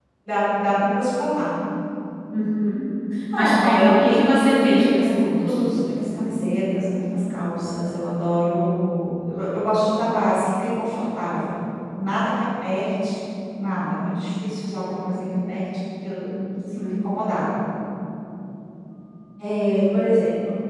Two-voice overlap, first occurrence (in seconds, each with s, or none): 3.4 s